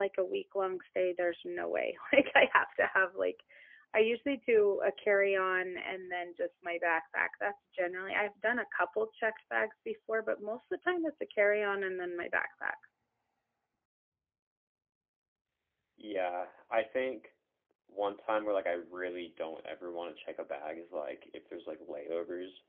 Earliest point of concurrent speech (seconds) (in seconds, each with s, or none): none